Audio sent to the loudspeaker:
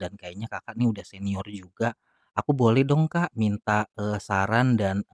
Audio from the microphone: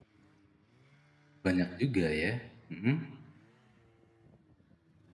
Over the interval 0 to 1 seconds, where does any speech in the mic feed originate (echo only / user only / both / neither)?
neither